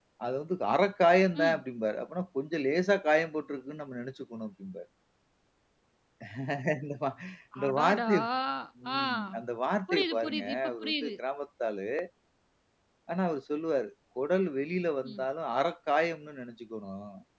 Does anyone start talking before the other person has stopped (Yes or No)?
Yes